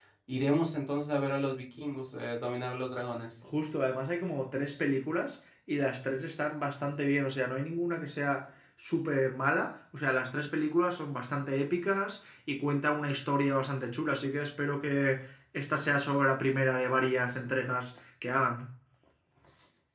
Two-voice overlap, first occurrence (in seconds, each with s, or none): none